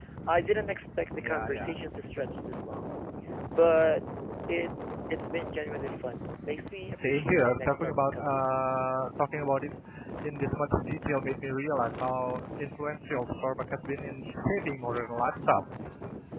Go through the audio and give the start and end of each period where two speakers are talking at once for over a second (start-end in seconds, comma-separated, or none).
6.9-8.6